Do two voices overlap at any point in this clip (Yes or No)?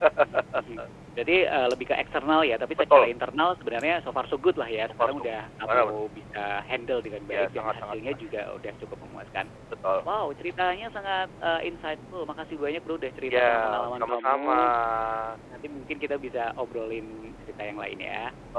Yes